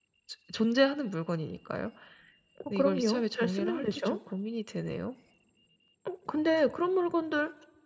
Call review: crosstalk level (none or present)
present